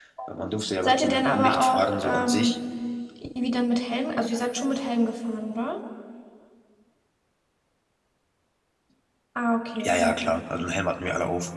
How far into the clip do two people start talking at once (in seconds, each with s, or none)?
0.8 s